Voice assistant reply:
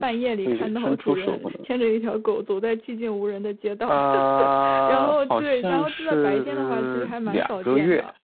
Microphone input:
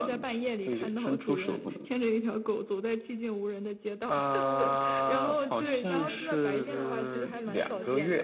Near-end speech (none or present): present